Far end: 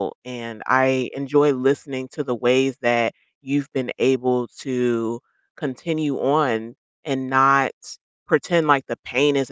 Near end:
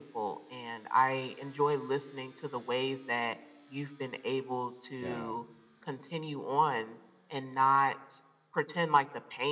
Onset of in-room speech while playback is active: 5.0 s

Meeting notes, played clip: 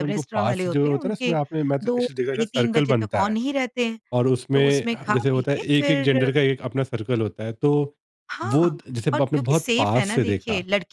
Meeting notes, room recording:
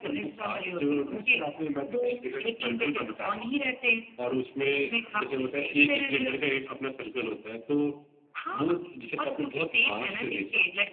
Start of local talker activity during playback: none

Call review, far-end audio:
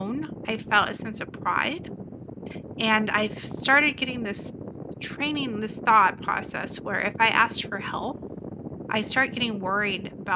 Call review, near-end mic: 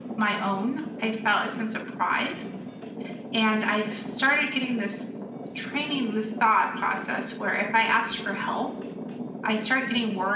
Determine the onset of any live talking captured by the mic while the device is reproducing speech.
none

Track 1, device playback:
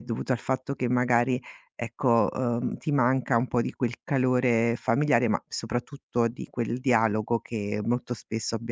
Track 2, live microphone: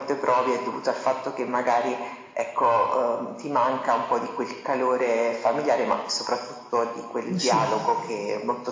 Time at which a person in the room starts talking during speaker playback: 7.3 s

